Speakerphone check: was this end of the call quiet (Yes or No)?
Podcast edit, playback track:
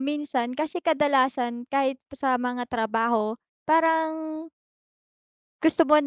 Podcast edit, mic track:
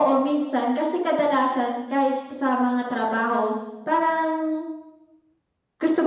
Yes